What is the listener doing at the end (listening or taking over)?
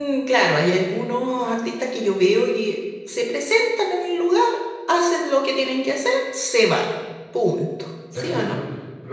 taking over